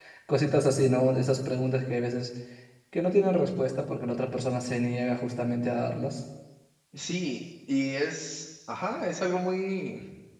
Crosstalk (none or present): none